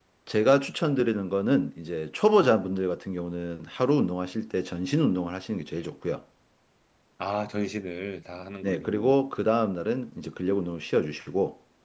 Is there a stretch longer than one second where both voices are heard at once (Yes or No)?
No